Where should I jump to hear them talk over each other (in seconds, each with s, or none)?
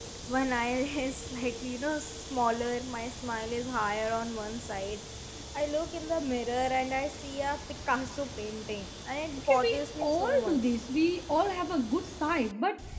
9.4 s